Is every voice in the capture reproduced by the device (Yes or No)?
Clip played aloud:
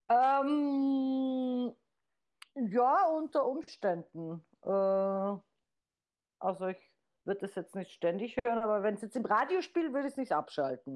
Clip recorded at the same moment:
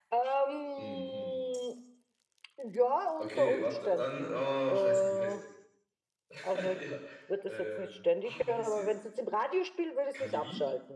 No